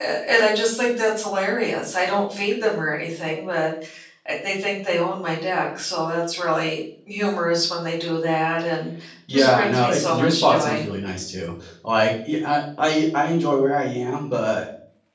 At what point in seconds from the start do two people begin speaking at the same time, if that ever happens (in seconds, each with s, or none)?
9.3 s